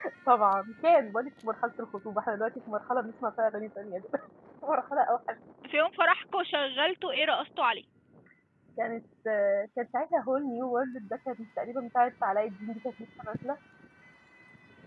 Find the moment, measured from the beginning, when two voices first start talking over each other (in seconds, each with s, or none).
none